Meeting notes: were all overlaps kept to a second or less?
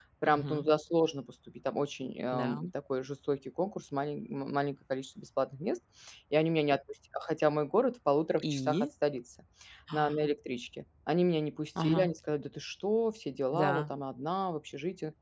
Yes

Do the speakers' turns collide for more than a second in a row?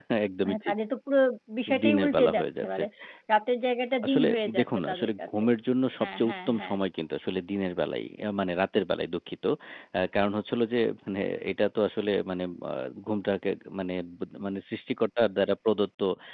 Yes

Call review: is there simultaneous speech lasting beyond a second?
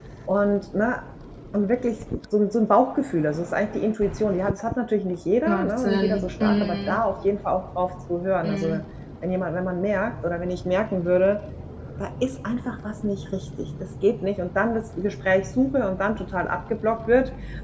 Yes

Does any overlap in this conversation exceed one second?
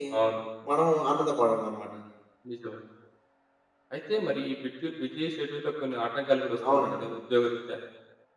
No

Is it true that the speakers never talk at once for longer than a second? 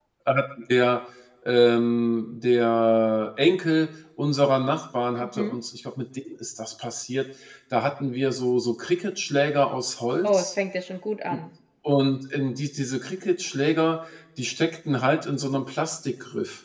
Yes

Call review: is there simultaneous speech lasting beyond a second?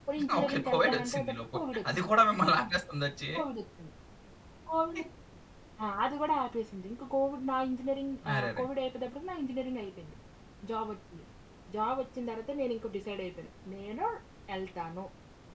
Yes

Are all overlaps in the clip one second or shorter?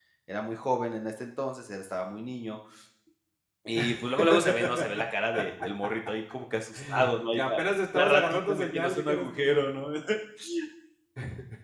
No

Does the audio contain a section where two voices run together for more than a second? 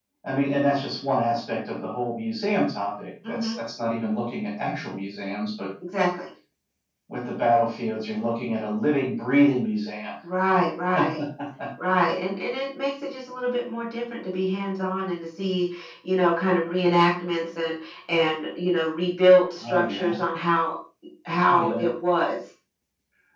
No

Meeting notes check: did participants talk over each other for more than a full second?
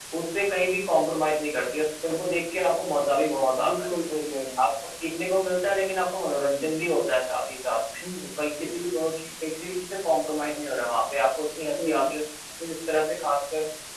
No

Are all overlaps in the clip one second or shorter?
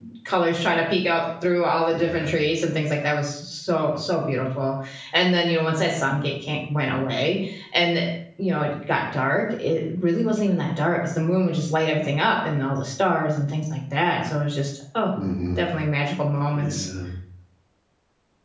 Yes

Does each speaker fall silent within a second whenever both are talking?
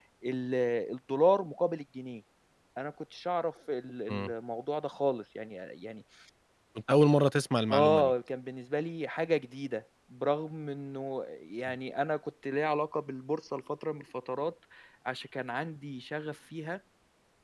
Yes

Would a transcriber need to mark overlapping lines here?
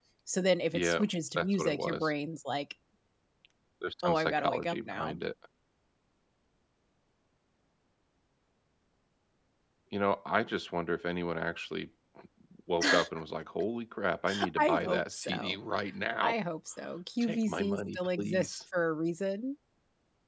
Yes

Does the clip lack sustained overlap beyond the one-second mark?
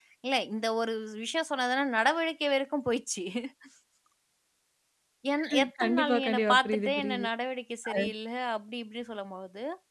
No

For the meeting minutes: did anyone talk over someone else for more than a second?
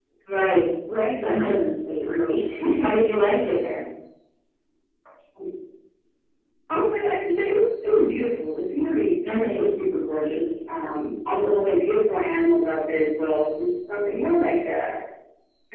No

